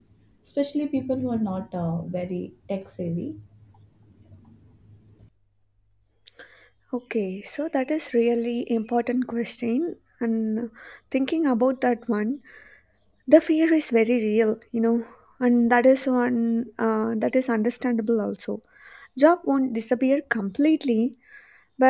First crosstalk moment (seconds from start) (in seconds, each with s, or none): none